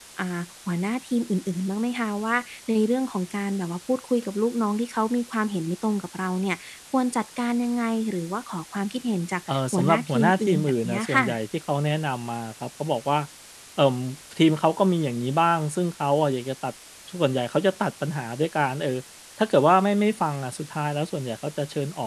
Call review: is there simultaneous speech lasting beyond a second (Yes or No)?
Yes